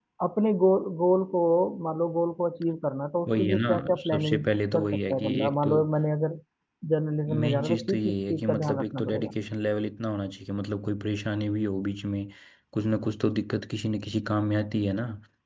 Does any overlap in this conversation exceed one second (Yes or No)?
Yes